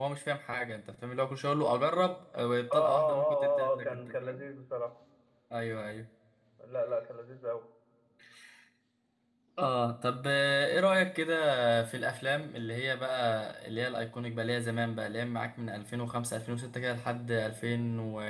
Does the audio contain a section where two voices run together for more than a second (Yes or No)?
Yes